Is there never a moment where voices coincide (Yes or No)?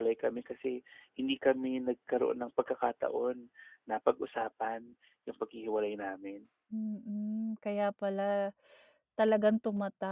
Yes